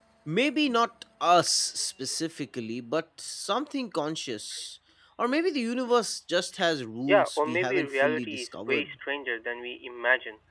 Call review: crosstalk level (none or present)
present